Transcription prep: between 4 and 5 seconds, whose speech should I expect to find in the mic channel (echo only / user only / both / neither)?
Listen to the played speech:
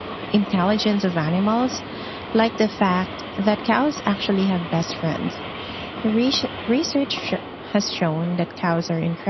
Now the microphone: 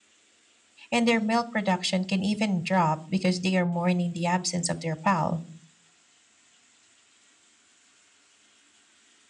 user only